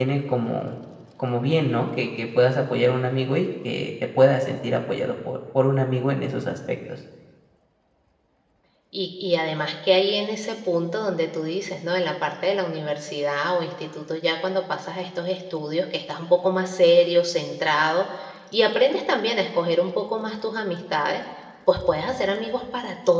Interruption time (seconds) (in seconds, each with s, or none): none